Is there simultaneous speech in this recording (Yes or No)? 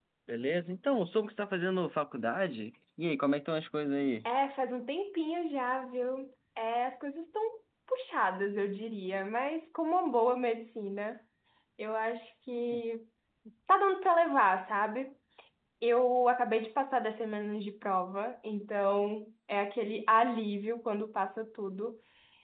No